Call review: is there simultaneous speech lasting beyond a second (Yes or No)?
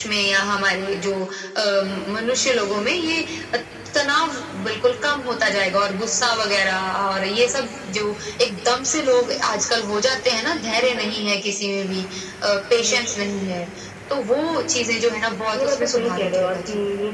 Yes